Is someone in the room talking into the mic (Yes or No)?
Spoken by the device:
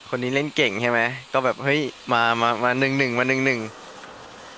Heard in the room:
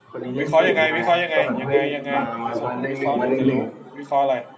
Yes